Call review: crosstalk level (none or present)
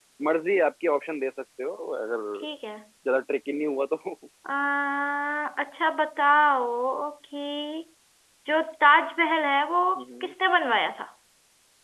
none